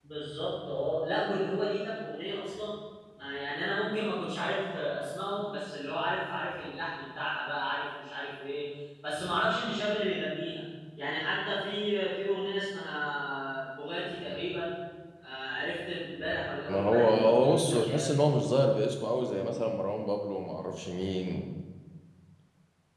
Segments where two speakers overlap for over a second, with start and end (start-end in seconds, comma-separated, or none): 16.7-18.1